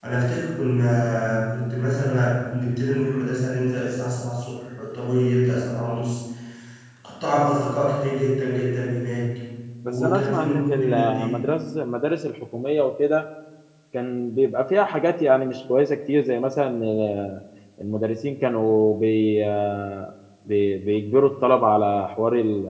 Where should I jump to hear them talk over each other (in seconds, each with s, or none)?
9.9 s